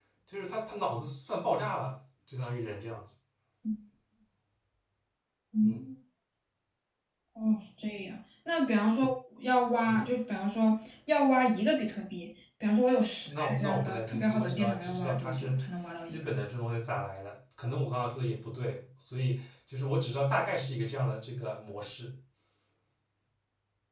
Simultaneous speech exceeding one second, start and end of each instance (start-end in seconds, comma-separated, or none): 13.3-15.6